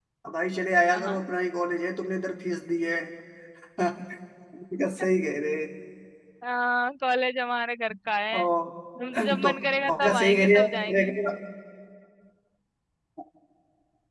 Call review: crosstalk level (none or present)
present